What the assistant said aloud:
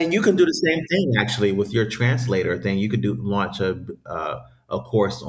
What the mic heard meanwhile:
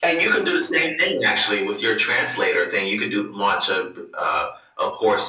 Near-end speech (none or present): none